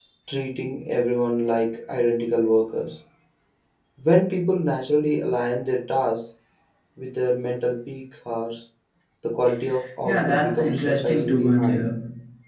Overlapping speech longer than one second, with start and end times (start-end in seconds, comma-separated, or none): 10.0-11.8